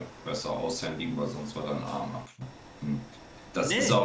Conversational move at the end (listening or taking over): taking over